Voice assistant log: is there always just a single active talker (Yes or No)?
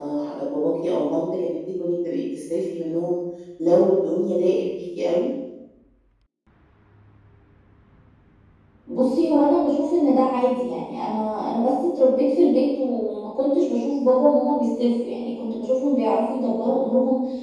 Yes